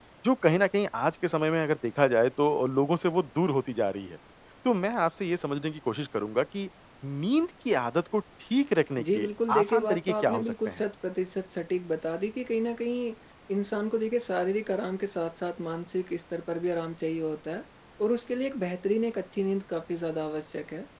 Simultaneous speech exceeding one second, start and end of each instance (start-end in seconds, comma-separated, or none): 9.0-10.8